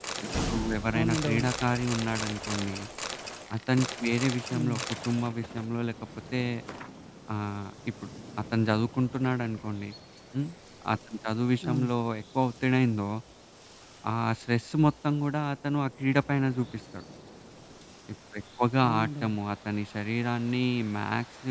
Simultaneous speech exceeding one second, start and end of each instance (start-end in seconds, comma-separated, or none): none